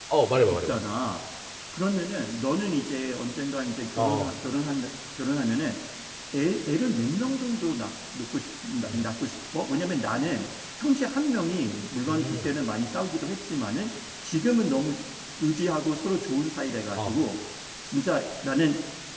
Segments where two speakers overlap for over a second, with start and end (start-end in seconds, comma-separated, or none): none